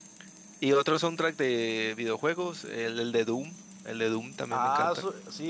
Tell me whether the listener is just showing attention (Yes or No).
No